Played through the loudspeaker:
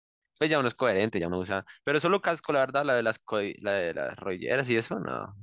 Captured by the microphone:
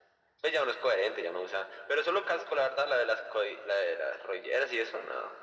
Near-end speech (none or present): none